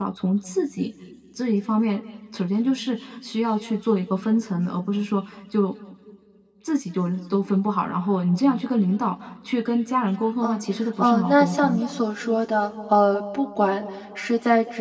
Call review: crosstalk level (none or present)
present